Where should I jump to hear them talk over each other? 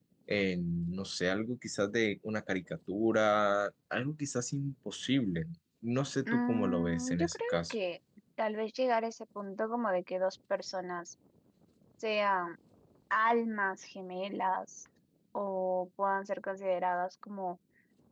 6.3 s

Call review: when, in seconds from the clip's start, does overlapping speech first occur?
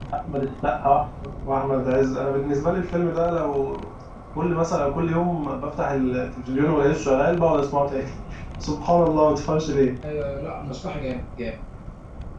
none

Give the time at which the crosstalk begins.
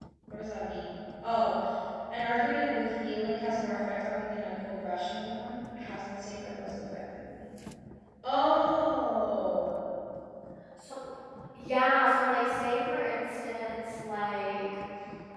none

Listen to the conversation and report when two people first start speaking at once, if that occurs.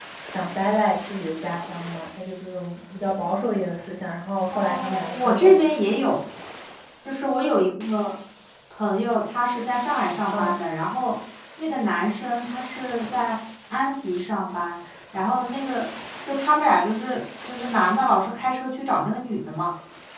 4.5 s

